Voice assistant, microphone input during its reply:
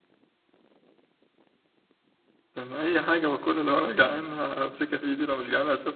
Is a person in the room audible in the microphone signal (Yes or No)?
Yes